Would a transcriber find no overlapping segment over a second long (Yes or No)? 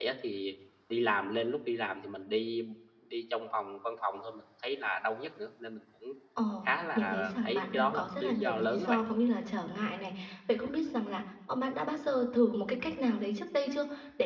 No